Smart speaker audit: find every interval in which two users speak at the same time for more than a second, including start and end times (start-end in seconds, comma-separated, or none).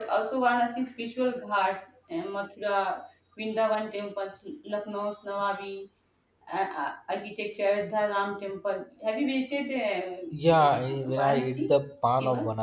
10.3-11.7